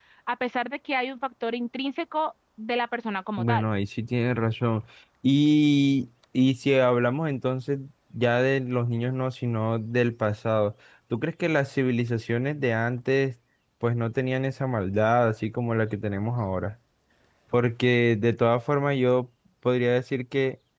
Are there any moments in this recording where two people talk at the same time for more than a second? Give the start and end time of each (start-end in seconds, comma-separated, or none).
none